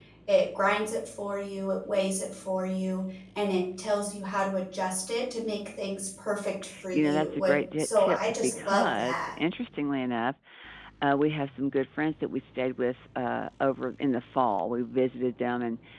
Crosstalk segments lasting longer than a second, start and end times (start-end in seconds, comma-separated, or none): 6.9-9.2